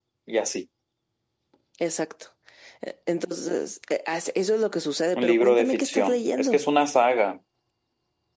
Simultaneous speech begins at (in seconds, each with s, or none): 5.2 s